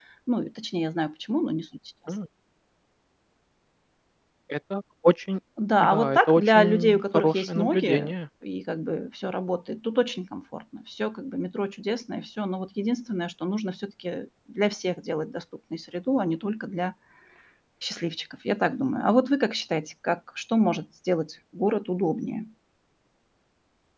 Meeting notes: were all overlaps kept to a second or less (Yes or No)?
No